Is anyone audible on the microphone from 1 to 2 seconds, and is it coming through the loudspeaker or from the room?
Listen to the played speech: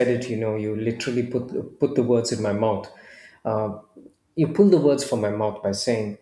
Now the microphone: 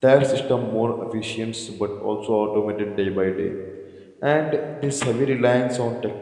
user only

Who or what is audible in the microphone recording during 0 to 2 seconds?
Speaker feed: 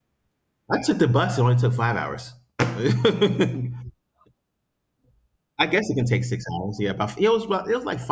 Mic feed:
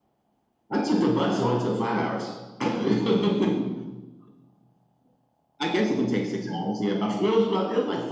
echo only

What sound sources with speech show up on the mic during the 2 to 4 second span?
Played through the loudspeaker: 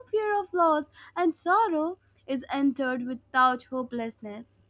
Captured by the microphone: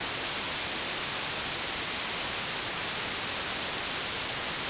neither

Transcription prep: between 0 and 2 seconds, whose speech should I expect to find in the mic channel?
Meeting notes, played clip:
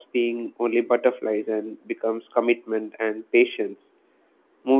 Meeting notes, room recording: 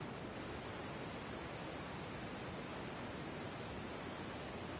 neither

